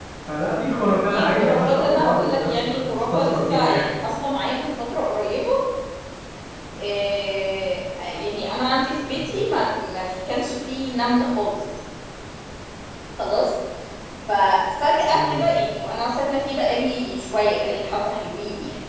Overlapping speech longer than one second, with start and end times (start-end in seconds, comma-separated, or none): 1.1-3.9